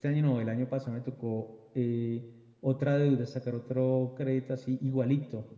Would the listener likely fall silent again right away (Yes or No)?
Yes